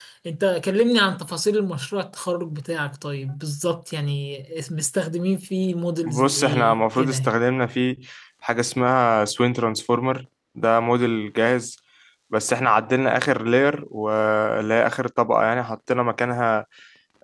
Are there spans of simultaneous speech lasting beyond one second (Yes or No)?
Yes